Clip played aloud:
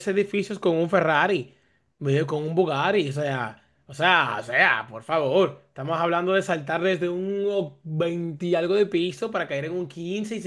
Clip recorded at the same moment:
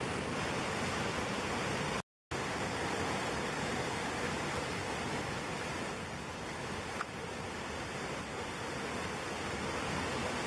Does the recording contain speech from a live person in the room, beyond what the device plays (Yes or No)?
No